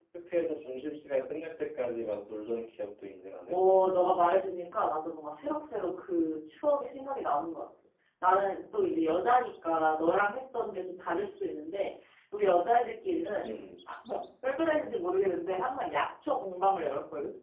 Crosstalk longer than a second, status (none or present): none